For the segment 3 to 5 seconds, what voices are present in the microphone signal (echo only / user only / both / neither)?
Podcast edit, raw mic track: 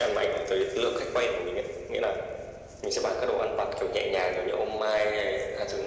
echo only